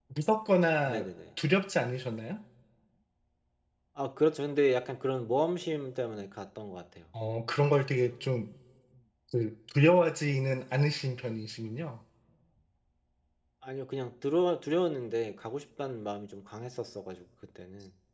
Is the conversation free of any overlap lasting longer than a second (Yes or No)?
Yes